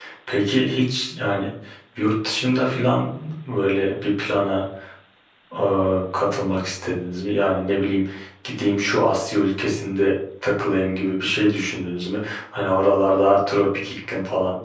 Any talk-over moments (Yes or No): No